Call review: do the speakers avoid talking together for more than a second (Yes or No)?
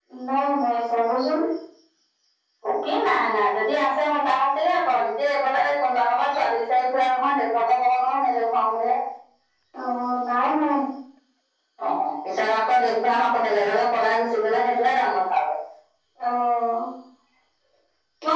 Yes